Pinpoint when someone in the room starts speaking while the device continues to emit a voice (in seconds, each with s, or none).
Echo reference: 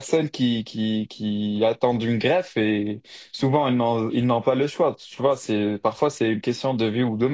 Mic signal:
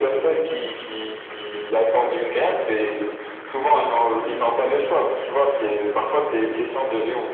none